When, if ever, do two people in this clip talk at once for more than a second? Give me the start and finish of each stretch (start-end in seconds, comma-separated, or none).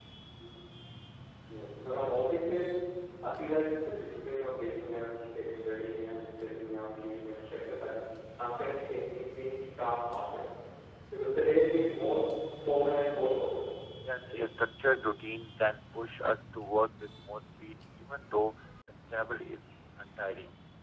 none